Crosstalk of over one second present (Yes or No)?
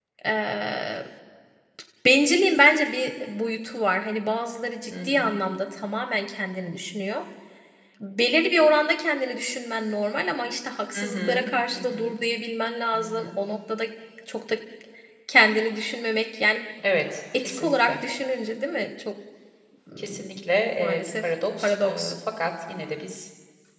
Yes